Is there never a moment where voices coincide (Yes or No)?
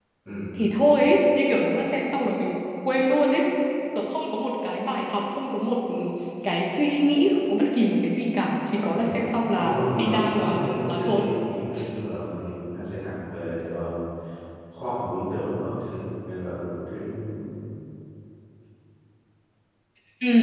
No